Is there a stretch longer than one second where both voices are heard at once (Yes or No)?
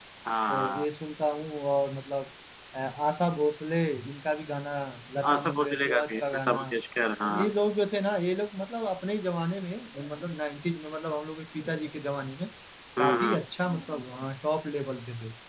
Yes